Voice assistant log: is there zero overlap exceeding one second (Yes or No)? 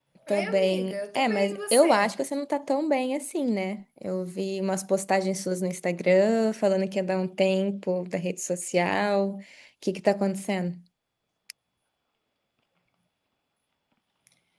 No